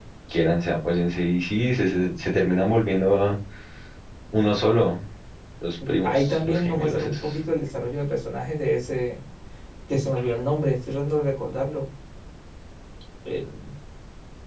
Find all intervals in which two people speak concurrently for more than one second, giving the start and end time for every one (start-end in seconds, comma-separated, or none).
5.9-7.2